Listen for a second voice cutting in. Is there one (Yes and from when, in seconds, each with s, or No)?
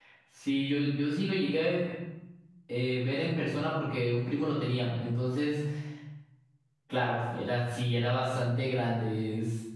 No